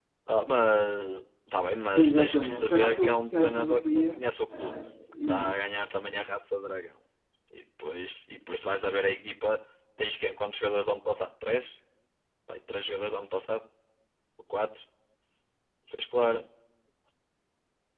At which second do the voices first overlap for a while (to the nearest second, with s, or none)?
2 s